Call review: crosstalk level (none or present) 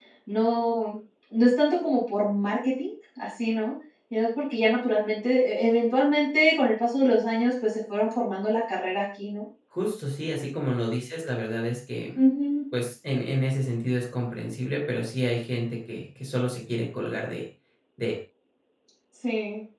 none